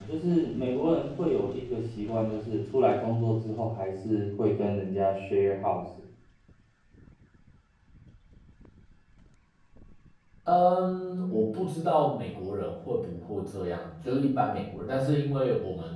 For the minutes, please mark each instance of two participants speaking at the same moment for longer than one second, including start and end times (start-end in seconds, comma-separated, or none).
none